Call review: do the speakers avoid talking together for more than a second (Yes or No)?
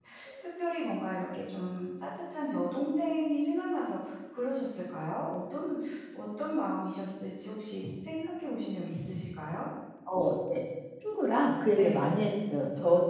Yes